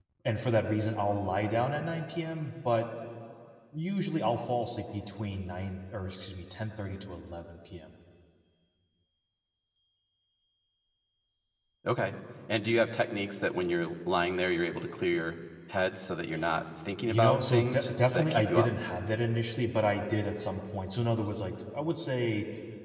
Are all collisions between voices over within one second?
No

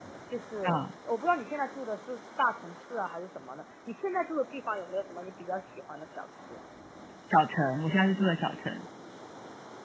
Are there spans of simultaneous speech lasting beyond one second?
No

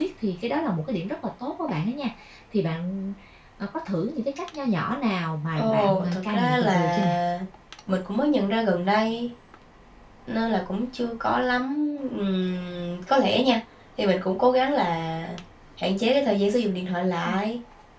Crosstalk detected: Yes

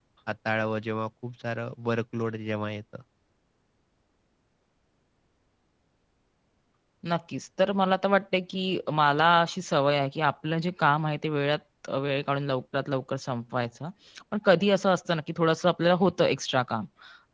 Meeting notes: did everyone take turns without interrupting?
Yes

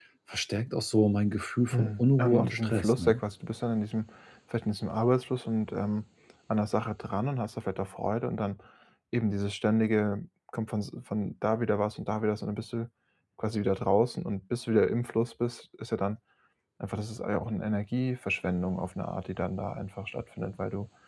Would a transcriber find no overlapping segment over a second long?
No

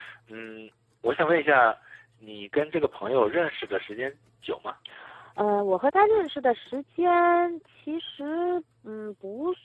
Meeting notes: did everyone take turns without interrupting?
Yes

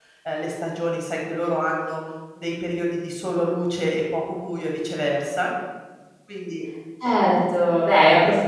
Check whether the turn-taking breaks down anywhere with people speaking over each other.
No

